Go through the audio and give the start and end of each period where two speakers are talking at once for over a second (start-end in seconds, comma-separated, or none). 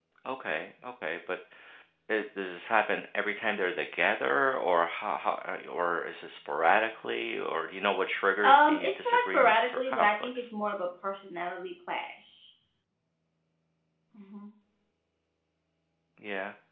8.4-10.5